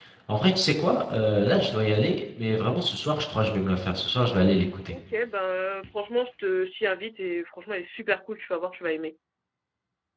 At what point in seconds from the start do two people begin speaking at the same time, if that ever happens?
none

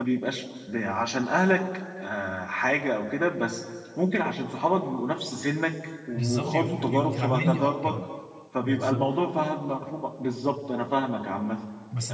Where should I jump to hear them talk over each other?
6 s

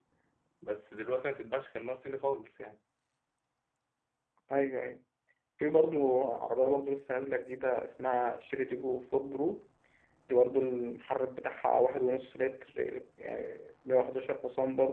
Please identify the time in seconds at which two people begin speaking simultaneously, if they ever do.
none

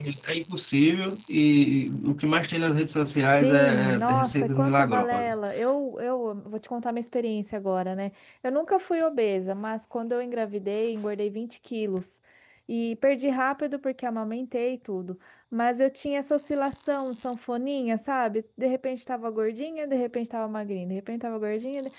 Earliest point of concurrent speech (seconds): 3 s

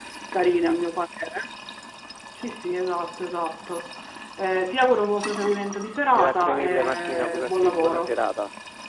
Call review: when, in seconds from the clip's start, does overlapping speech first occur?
6 s

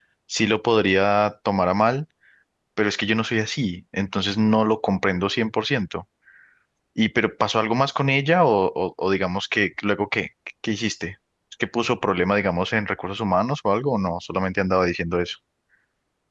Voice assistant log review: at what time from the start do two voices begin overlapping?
none

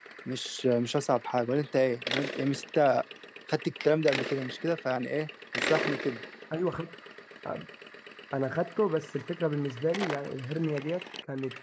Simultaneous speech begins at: none

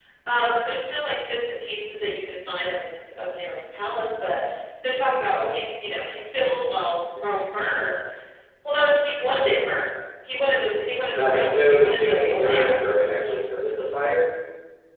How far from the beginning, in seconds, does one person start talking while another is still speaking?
11 s

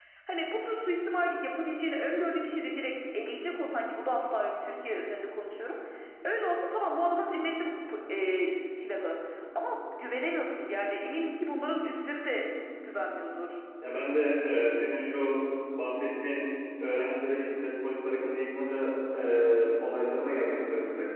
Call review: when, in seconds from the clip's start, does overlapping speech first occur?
none

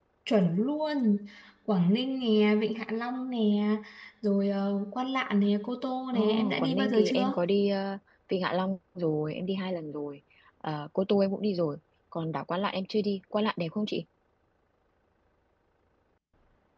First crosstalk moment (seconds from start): 6 s

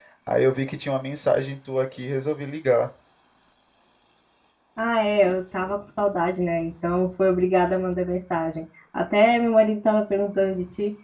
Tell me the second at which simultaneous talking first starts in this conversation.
none

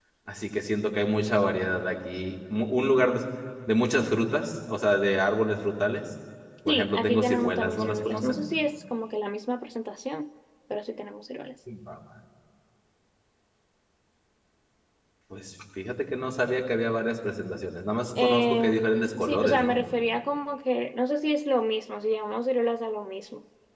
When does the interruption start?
7 s

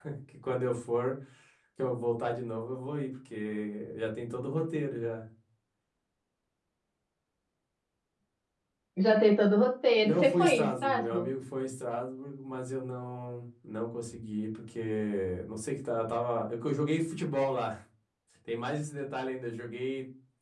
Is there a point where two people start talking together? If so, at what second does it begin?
10 s

